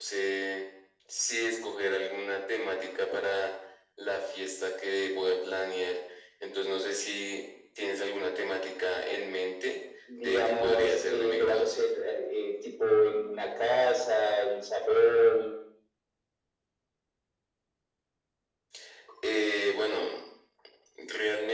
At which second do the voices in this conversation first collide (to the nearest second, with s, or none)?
10 s